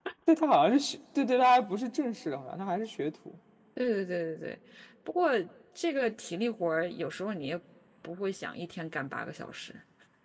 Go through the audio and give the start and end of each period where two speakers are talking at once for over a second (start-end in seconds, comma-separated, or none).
none